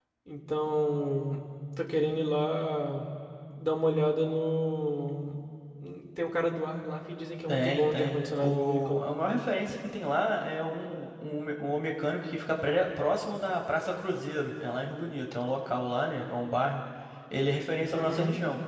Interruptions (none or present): present